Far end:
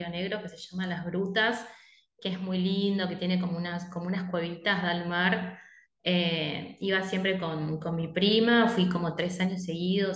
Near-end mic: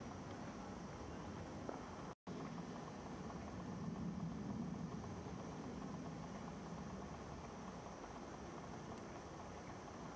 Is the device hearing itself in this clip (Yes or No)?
No